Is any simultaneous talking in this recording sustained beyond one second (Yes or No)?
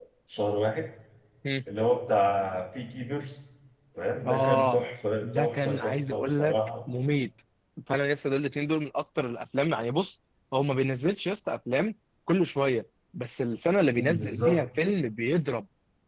Yes